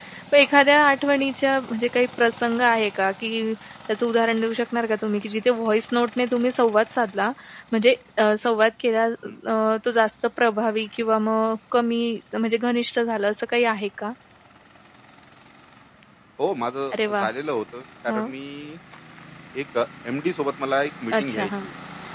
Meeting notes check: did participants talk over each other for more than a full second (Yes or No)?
No